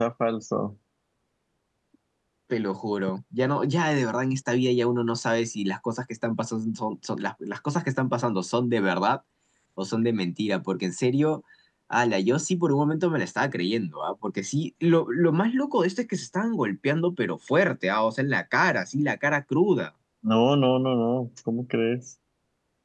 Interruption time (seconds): none

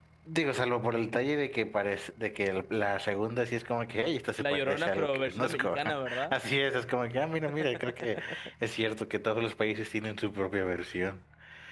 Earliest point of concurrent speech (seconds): 4.4 s

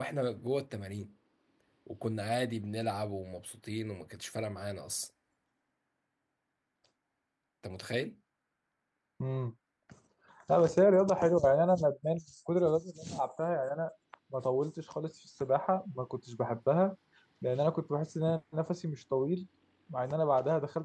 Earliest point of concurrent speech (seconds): none

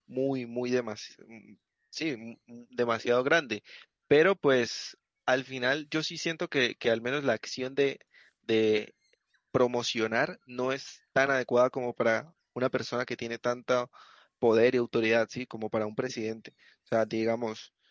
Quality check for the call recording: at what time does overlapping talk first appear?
none

